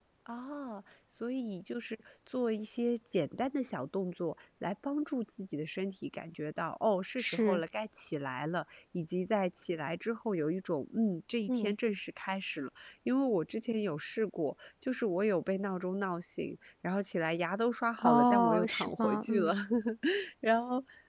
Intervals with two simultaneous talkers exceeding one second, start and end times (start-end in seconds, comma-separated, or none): 18.0-19.5